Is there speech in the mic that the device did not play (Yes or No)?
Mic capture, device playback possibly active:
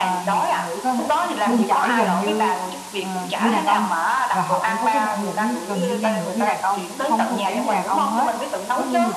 Yes